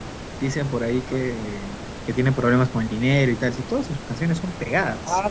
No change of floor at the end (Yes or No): No